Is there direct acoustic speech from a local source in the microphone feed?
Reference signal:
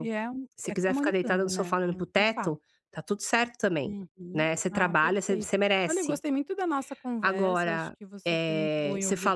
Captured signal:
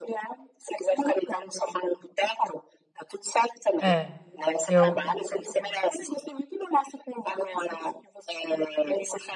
Yes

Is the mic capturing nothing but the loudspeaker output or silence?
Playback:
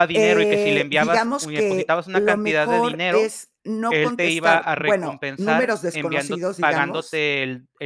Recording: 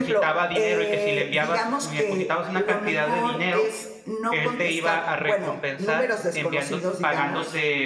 Yes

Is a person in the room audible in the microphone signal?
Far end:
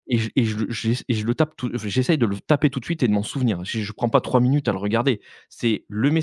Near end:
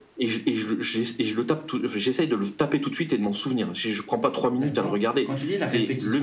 Yes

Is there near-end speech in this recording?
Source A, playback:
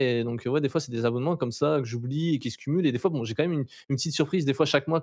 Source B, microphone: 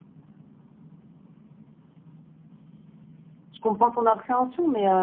Yes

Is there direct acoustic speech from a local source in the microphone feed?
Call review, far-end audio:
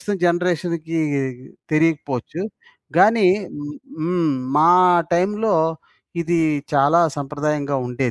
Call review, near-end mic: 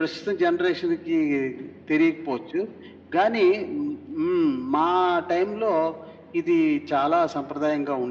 No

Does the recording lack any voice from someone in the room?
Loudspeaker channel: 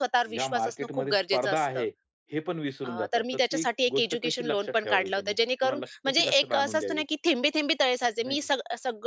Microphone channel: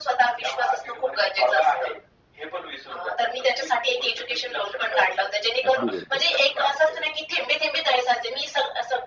No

